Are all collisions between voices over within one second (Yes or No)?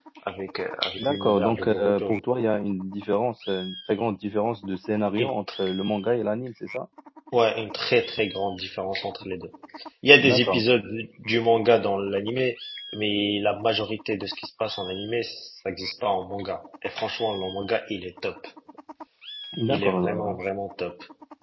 No